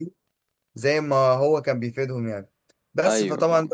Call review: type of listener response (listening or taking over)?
listening